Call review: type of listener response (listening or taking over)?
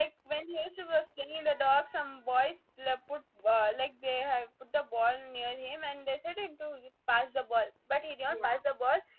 listening